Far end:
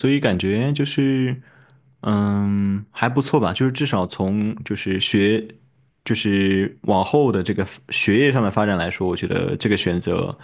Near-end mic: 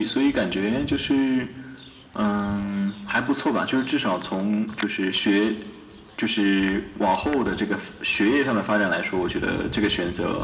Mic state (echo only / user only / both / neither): echo only